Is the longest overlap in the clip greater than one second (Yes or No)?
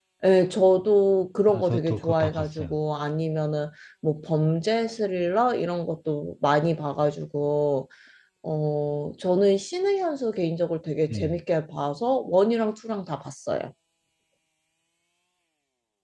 Yes